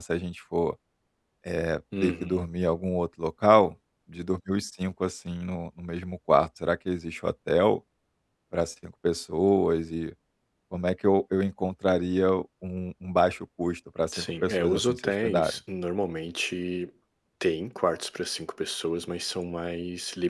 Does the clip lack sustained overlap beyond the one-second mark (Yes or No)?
No